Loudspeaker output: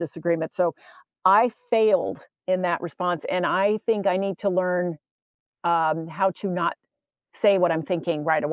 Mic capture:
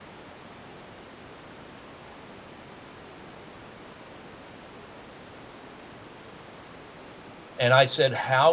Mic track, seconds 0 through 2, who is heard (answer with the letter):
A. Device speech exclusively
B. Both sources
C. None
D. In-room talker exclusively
C